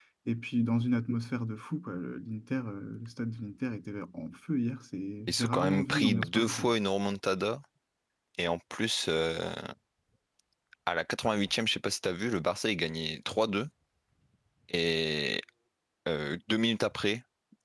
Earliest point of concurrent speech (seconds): 5.3 s

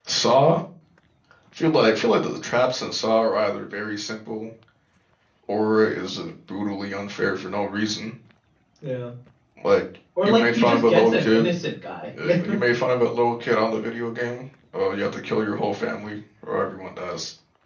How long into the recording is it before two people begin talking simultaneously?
10.2 s

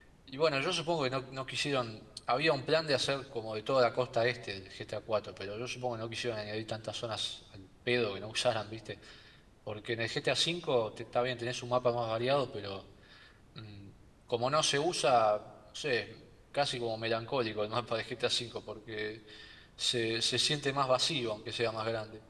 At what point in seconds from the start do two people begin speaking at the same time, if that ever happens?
none

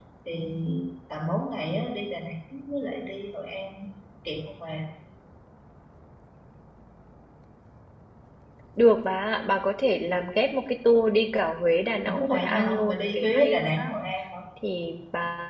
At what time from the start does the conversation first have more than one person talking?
12.1 s

